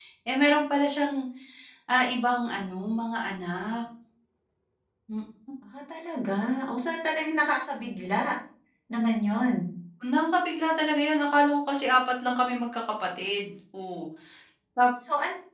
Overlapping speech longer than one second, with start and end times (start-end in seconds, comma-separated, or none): none